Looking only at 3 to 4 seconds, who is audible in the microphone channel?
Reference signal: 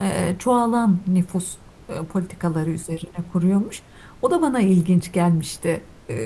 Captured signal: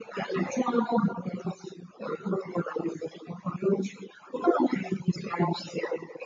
echo only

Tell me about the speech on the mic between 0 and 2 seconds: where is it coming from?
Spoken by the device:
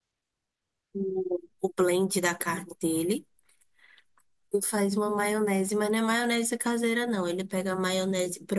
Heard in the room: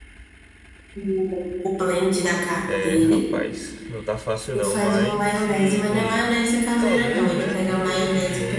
echo only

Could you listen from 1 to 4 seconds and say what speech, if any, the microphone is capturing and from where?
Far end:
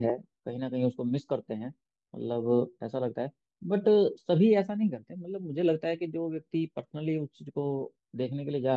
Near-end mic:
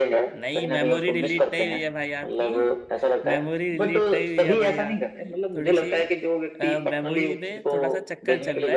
both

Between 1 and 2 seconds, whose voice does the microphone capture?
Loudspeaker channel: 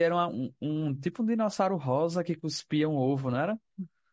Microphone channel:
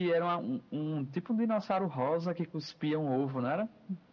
echo only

